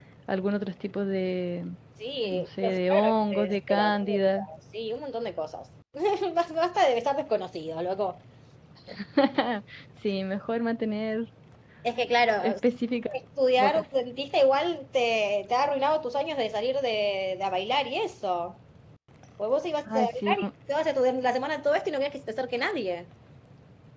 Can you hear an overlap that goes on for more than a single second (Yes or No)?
Yes